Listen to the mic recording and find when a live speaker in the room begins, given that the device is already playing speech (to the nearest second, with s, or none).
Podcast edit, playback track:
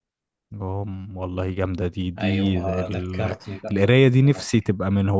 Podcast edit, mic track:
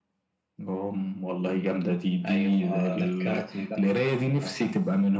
none